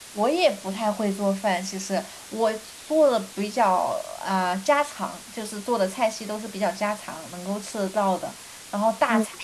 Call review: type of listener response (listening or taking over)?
listening